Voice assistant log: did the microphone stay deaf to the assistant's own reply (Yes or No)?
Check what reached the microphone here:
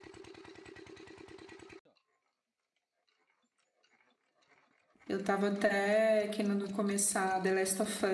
Yes